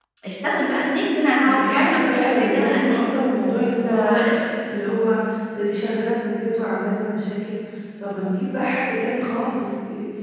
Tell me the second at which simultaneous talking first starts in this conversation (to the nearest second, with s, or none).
1 s